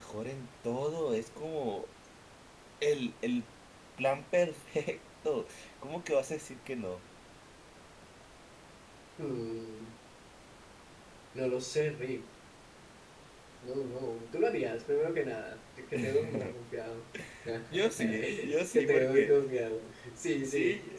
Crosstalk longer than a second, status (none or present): present